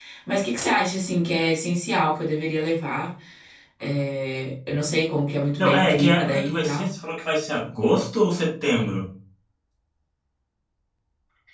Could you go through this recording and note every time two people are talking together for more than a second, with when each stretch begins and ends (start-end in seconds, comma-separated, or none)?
5.6-6.9